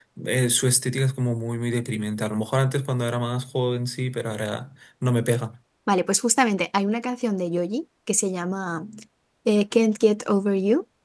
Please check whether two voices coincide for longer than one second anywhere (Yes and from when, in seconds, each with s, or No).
No